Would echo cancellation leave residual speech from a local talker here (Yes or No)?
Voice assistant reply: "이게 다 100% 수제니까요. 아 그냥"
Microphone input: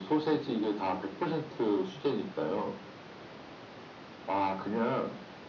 No